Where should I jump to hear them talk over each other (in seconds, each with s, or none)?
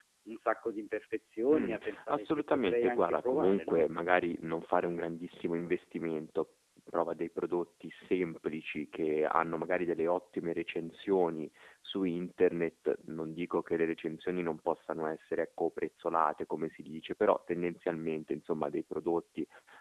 1.5 s